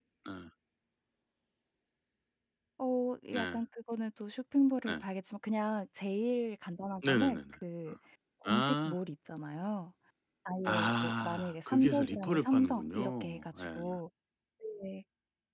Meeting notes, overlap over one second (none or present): present